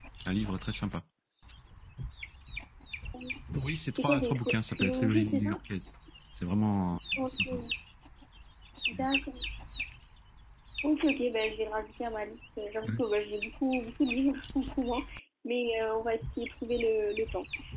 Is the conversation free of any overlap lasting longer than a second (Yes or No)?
No